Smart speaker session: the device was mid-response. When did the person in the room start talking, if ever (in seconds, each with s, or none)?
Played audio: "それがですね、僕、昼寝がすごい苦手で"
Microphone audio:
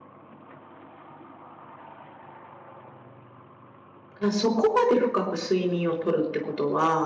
4.2 s